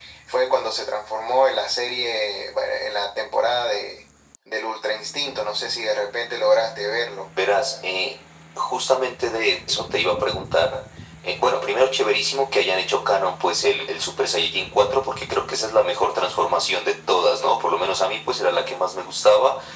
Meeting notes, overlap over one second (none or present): none